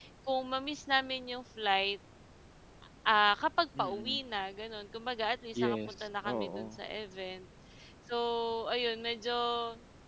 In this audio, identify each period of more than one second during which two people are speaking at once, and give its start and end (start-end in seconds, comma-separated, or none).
5.6-6.8